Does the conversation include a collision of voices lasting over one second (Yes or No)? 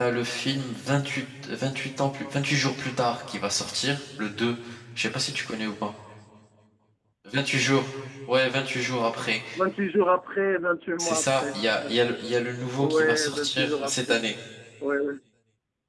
Yes